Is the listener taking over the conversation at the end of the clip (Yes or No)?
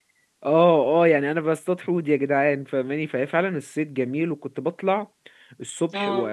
No